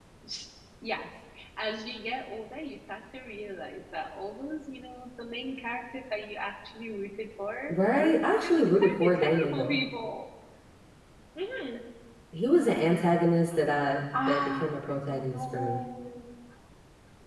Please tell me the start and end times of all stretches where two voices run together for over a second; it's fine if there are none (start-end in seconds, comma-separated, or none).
7.7-9.8, 14.3-15.8